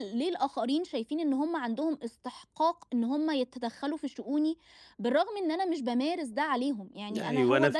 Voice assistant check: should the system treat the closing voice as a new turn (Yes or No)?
Yes